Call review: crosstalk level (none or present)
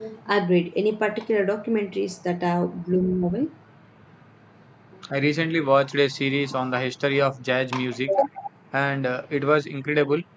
none